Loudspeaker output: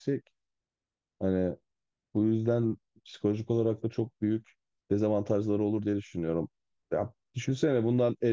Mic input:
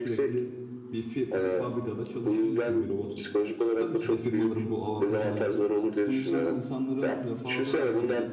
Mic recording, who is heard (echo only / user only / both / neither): both